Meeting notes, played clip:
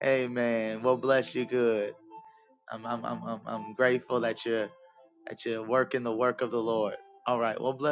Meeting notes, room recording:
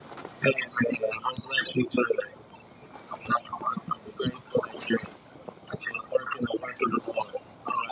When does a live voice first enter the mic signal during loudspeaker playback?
none

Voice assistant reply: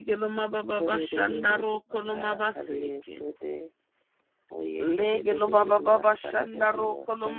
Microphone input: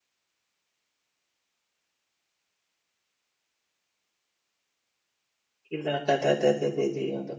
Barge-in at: 6 s

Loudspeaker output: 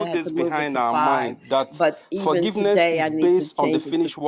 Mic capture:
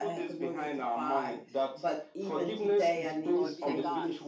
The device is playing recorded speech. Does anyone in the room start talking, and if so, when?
3 s

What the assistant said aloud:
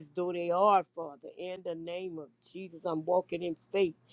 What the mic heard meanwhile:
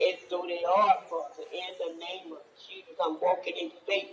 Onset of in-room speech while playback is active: none

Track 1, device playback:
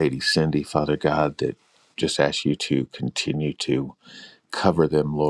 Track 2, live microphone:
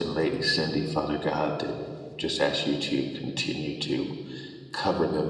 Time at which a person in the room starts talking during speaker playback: none

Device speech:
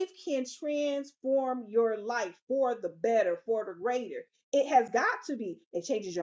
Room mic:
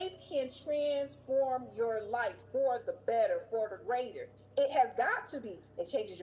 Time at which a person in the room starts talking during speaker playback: none

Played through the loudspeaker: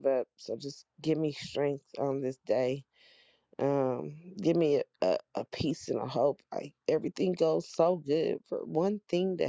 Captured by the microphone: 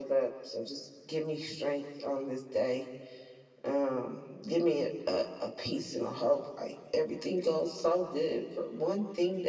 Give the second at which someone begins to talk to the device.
none

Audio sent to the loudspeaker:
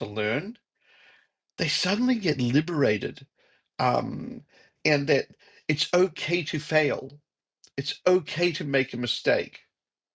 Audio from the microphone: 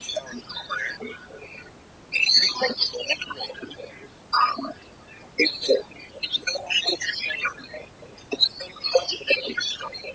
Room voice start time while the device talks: none

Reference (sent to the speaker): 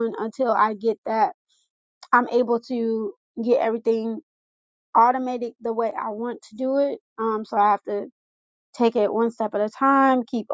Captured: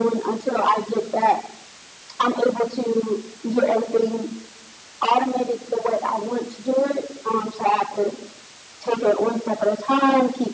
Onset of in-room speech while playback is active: none

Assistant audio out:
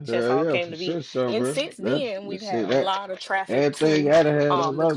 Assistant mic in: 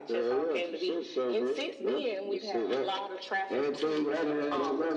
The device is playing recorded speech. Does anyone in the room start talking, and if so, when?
none

